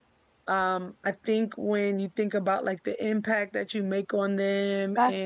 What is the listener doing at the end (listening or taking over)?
listening